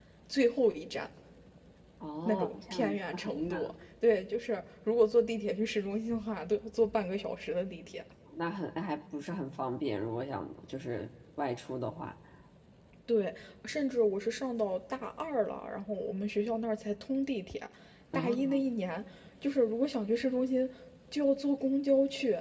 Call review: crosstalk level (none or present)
present